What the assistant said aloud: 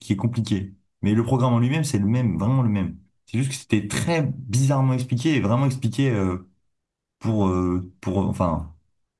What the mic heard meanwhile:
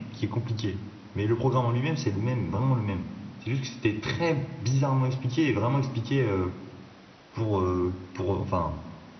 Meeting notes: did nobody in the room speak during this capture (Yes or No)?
Yes